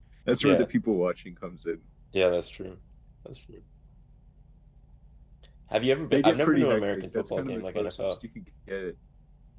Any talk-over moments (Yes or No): Yes